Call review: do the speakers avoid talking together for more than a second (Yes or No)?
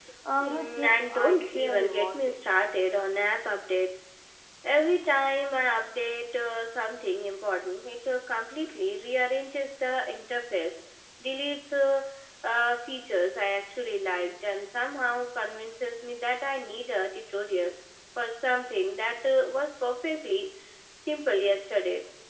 No